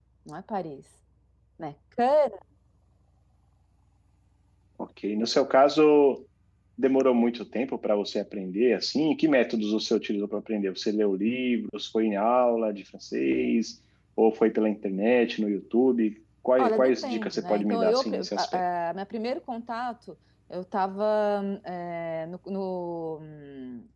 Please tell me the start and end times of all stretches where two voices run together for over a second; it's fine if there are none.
16.6-18.6

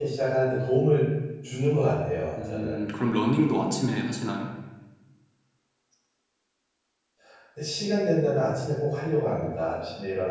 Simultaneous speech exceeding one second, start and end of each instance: none

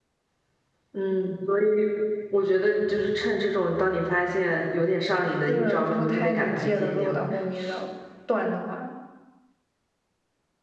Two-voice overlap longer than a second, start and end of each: 5.5-7.2

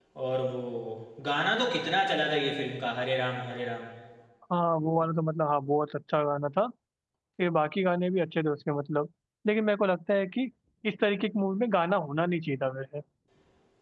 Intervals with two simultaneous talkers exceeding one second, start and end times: none

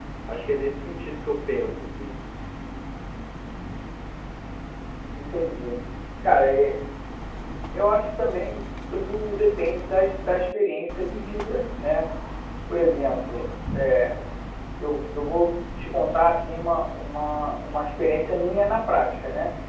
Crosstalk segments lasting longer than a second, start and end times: none

